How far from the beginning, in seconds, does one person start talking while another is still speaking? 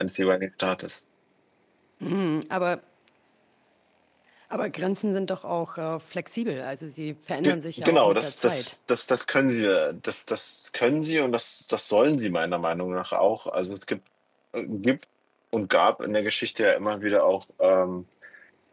7 s

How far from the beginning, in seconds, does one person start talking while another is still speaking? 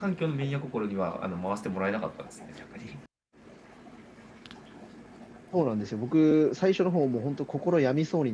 none

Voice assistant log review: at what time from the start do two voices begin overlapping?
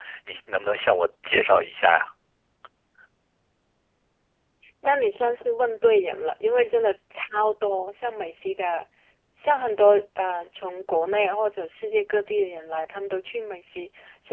none

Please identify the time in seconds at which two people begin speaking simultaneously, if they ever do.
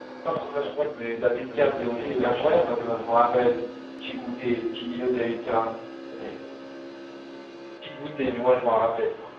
2 s

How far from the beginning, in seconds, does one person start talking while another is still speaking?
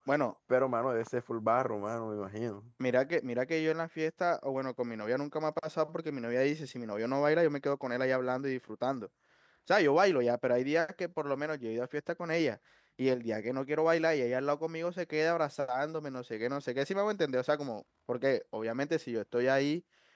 none

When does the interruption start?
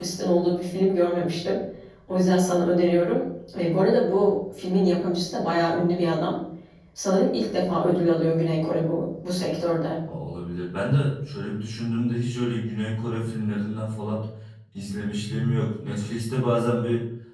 none

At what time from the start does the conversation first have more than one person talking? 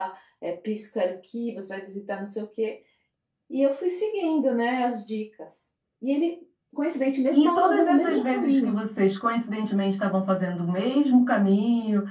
7 s

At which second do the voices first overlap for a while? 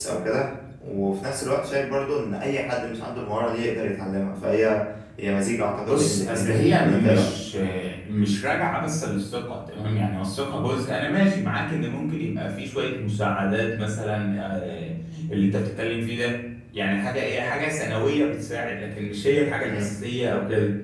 6 s

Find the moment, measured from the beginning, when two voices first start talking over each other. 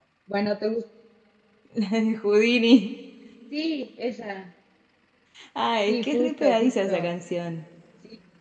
6 s

